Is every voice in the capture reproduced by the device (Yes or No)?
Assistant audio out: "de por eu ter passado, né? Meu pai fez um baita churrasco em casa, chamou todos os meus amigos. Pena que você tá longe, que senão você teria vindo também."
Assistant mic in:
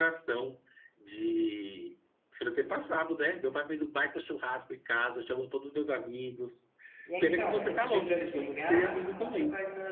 No